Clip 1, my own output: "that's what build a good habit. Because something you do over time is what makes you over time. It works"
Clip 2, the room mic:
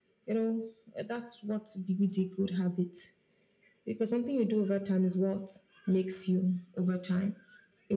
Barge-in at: none

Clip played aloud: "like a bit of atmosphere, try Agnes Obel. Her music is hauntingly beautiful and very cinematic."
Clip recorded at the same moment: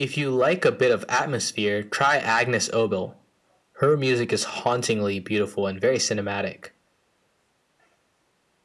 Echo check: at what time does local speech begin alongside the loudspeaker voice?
none

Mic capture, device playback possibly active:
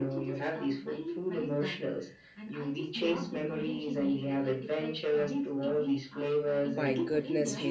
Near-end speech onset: 7 s

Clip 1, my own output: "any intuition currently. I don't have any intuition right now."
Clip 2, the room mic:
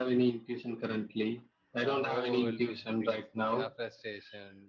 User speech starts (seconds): 2 s

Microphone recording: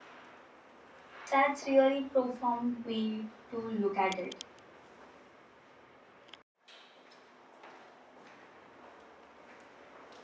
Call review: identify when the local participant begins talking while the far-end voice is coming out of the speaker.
1 s

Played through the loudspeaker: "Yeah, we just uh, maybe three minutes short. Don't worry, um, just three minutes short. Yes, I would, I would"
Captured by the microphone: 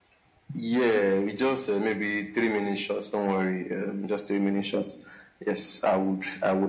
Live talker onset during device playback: none

